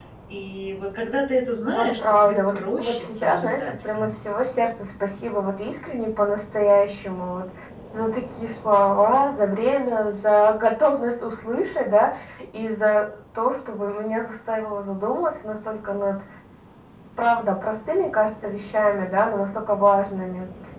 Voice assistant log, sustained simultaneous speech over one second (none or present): present